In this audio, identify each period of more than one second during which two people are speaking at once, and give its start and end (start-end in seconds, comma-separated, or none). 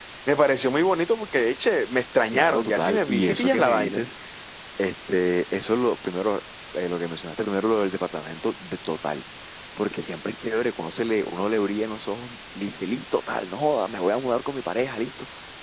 2.3-4.0